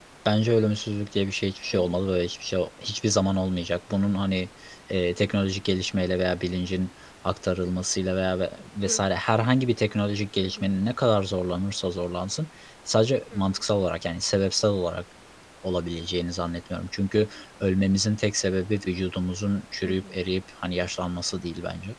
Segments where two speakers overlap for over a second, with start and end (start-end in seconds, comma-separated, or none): none